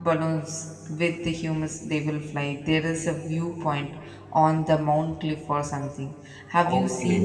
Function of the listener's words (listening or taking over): taking over